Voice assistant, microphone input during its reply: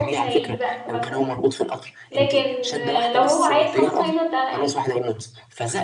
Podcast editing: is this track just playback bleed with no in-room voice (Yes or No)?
No